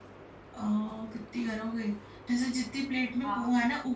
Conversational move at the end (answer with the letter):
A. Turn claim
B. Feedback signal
B